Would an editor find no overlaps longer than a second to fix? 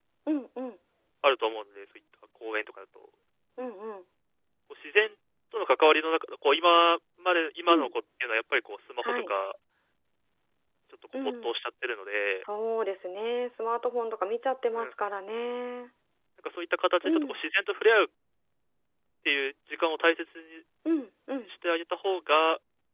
Yes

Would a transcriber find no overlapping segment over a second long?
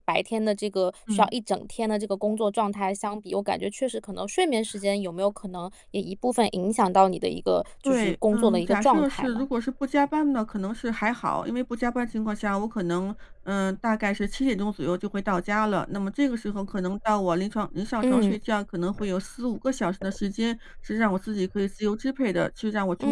No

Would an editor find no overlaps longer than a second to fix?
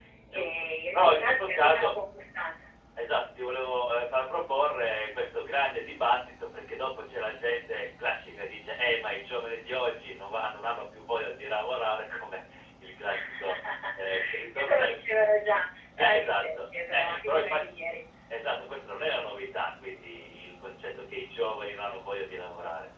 No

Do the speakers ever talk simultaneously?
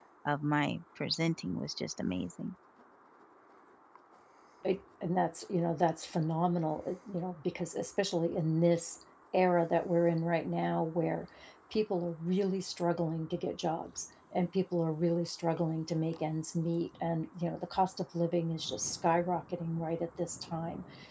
No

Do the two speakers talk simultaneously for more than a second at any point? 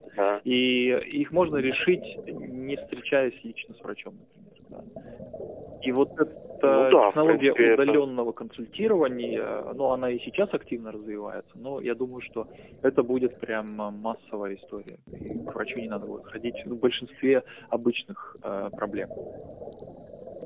Yes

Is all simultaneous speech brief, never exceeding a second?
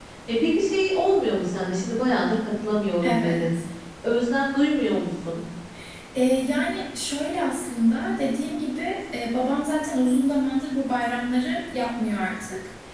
Yes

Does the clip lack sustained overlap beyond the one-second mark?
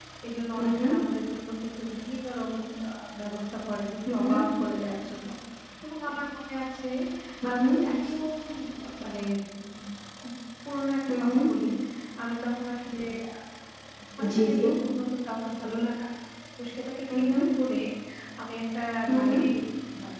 Yes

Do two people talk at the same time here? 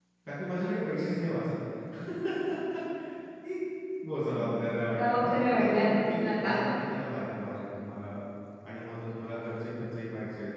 Yes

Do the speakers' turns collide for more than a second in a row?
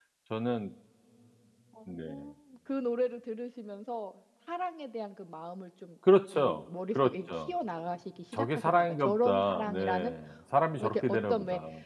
Yes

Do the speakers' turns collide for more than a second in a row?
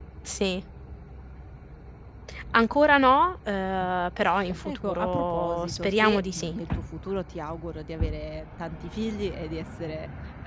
Yes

